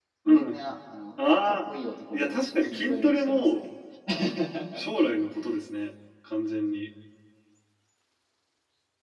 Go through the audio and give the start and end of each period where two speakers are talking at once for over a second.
2.1-3.6

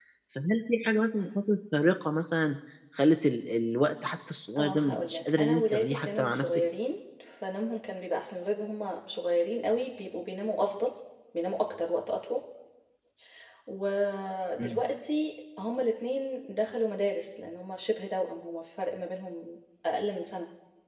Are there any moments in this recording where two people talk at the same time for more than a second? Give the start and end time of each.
4.6-6.6

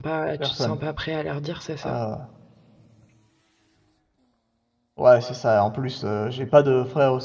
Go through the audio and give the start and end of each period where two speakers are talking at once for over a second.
none

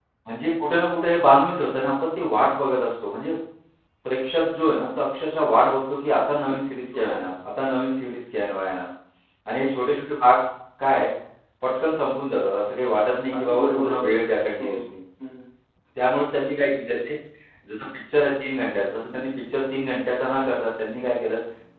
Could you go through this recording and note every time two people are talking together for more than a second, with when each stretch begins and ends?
13.3-14.8

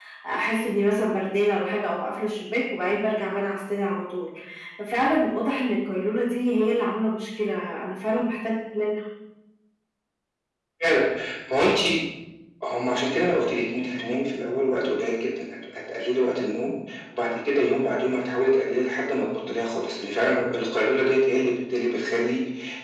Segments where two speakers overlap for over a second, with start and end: none

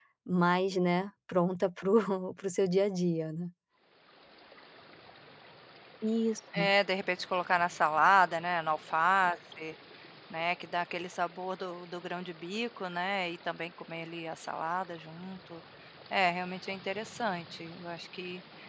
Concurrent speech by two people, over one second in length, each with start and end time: none

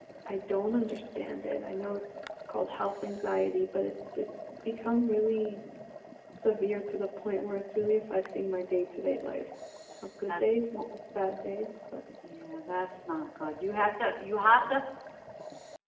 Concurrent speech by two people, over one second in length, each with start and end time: none

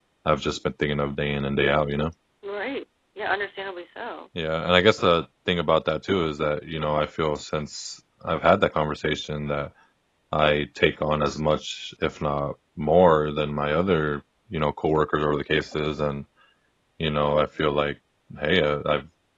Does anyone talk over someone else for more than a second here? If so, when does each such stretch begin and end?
none

